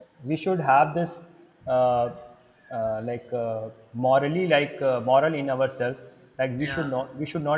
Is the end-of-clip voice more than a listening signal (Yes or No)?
No